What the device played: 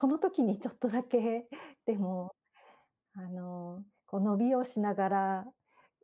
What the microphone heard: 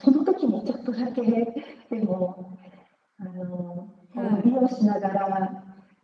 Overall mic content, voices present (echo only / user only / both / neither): both